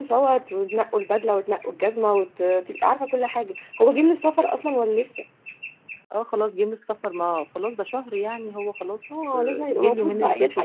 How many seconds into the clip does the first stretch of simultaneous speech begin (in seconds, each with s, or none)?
9.1 s